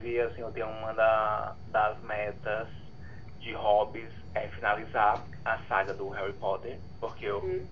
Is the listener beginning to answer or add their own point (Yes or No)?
No